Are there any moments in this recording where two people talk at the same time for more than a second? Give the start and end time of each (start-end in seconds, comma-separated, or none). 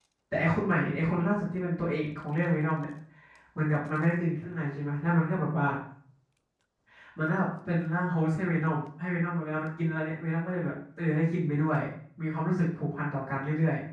none